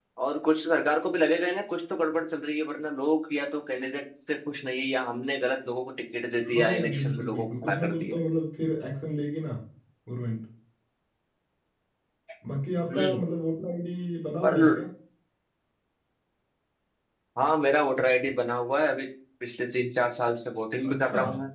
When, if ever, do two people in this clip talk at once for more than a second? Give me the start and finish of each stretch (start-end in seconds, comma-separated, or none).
6.5-8.2